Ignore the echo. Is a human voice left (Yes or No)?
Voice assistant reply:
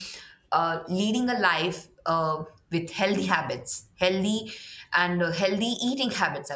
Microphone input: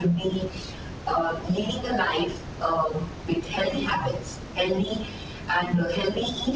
No